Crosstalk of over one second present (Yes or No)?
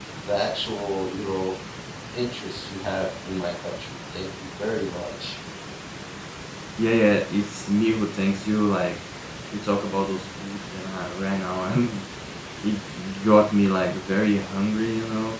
No